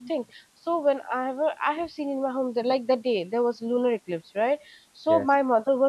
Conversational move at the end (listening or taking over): listening